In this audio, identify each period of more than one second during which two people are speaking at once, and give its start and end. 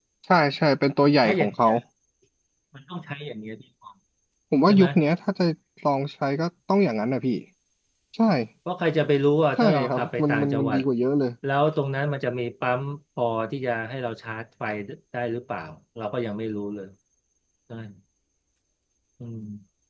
9.6-10.8

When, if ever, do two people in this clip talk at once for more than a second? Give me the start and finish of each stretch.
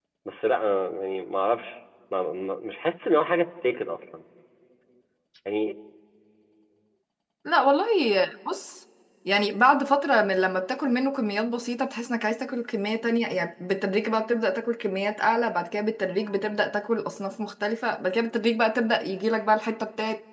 none

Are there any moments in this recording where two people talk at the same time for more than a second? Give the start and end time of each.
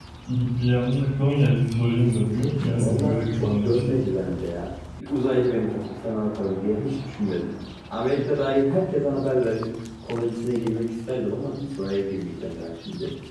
2.7-4.0

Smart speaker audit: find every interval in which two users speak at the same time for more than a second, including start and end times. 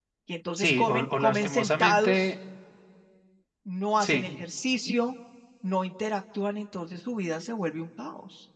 0.6-2.3

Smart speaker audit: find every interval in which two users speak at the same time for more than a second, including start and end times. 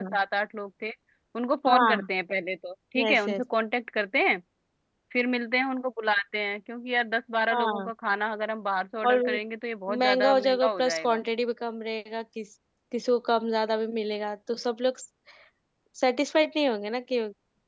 10.0-11.2

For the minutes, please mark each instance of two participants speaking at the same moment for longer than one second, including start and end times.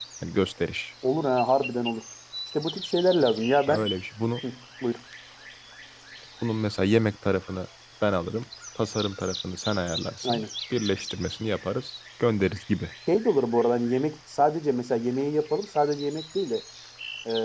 none

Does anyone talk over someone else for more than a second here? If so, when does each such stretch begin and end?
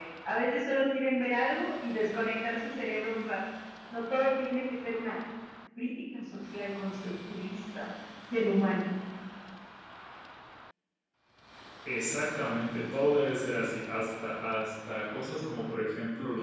none

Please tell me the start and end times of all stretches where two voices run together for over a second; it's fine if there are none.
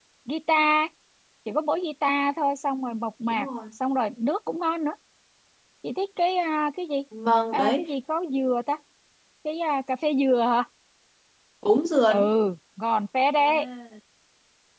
none

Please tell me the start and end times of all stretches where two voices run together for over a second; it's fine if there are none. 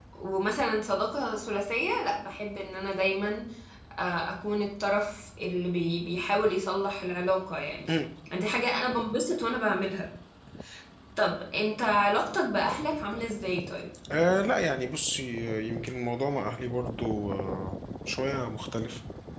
none

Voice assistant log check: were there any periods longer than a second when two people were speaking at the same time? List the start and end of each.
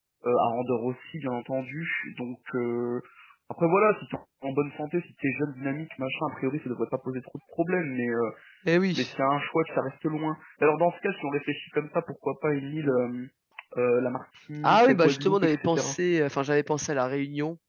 14.6-15.9

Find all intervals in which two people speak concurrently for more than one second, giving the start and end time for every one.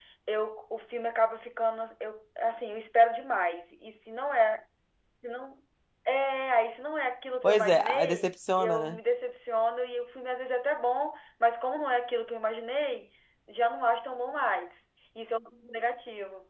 7.4-9.0

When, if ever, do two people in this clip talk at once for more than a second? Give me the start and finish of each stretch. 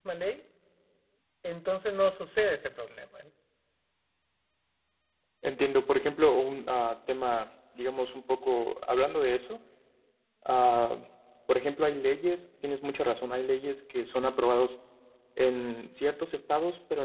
none

